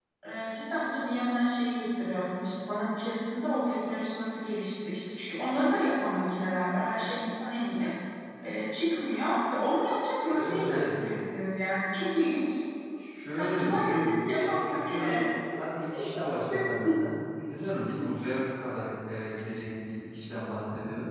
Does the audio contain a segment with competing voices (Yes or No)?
Yes